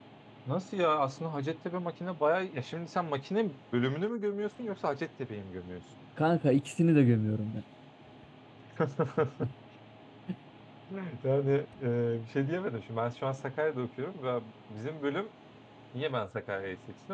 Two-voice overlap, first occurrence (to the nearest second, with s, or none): none